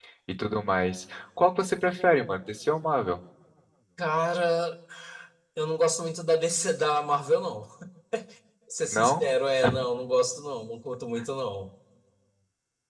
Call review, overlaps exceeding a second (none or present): none